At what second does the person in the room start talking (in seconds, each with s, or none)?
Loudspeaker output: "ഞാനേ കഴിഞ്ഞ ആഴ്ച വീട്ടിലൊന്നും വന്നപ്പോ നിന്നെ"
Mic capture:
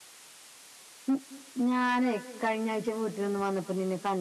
none